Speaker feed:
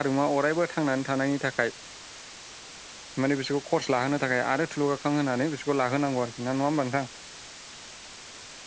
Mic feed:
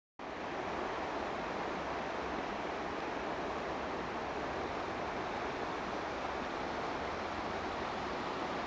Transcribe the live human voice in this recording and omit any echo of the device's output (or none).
none